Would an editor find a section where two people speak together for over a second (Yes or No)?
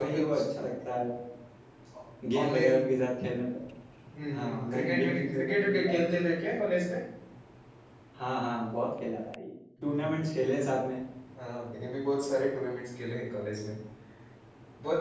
Yes